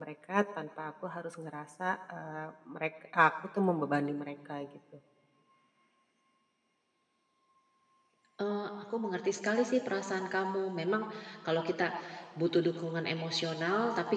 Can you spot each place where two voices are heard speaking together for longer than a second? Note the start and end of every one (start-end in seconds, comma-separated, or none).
none